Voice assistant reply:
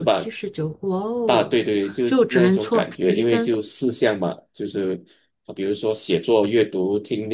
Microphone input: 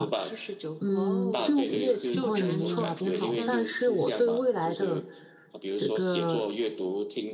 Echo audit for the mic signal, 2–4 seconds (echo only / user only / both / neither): both